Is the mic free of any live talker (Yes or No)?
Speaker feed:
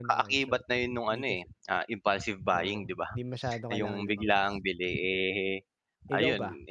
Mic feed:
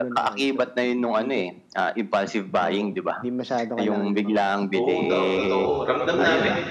No